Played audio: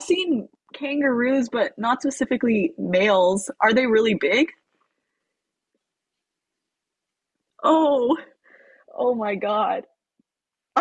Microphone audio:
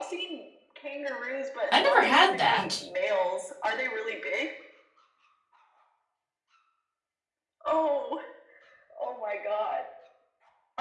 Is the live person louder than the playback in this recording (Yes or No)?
Yes